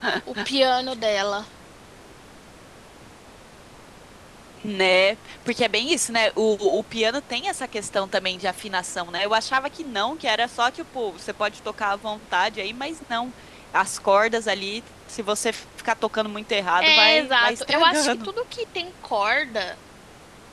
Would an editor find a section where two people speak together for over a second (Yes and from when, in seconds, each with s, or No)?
Yes, from 16.8 s